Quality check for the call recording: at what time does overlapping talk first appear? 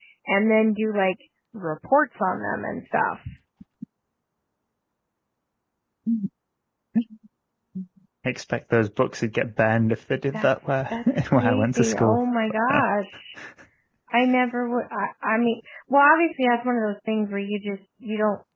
10.3 s

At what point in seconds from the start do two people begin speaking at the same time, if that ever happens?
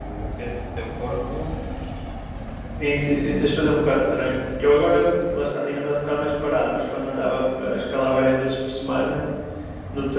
none

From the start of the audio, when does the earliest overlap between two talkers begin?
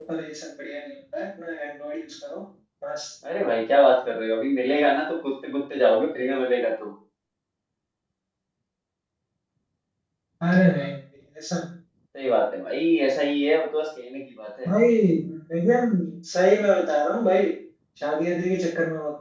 none

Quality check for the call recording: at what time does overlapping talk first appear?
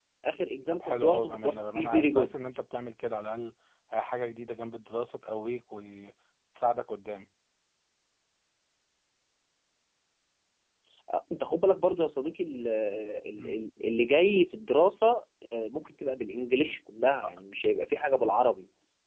0.7 s

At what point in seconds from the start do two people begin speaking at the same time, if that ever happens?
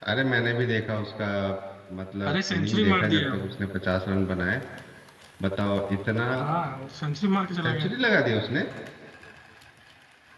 2.3 s

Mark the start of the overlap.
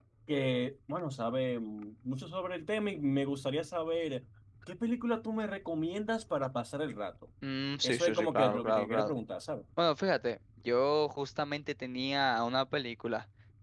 7.8 s

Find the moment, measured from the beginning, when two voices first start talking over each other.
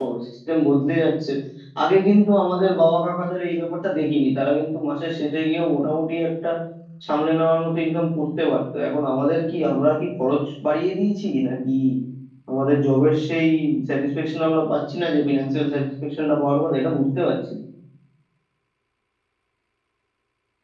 none

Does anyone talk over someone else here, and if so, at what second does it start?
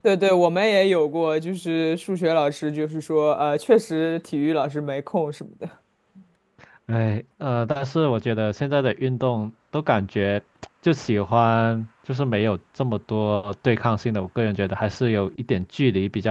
none

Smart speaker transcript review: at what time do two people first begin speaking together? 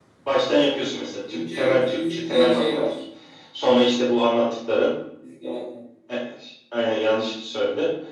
1.3 s

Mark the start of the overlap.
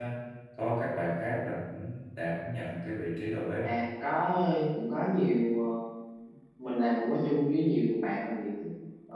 none

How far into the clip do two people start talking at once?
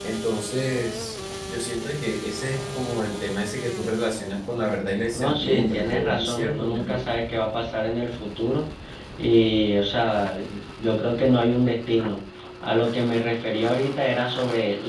5.2 s

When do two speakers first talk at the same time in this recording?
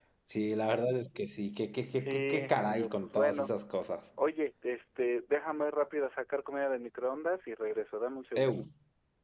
2.0 s

